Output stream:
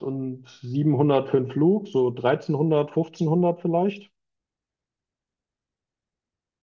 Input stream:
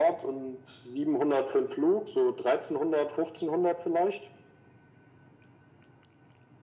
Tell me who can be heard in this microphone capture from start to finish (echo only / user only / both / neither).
echo only